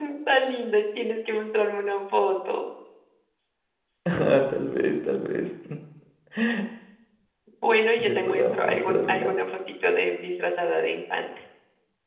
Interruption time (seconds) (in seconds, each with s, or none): 8.1 s